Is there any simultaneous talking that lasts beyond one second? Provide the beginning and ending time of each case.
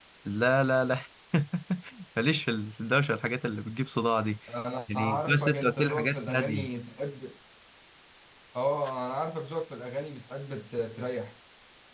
4.9-6.7

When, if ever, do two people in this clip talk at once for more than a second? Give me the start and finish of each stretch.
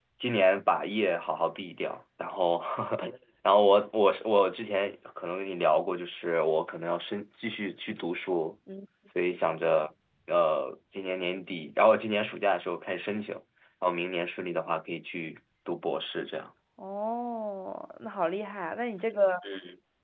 none

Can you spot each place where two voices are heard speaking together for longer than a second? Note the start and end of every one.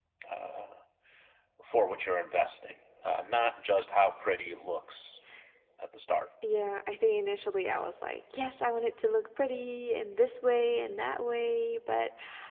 none

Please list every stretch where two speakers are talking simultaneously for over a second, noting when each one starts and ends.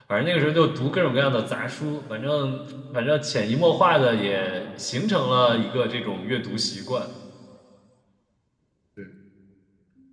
none

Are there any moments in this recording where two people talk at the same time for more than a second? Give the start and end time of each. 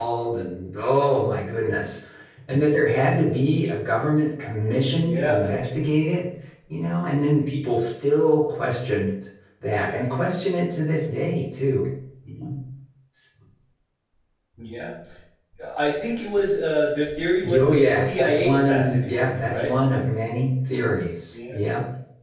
17.5-19.7

